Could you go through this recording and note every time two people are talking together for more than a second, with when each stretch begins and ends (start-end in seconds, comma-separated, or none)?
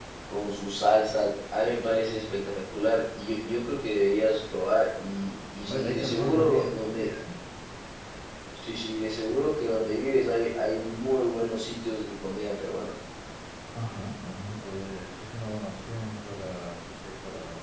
5.7-7.1